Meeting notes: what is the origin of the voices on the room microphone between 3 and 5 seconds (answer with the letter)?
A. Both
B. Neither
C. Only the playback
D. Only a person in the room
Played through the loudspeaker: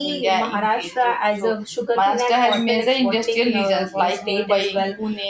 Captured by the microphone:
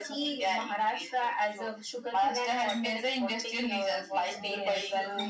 A